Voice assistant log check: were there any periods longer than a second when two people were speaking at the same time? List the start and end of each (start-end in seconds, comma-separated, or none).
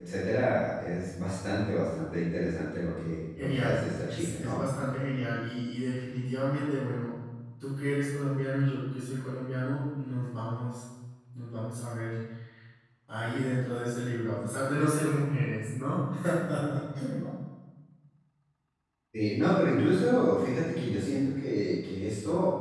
3.4-4.6